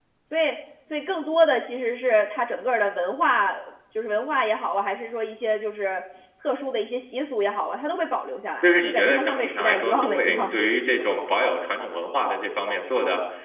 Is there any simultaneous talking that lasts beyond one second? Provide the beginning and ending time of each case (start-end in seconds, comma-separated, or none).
8.6-10.4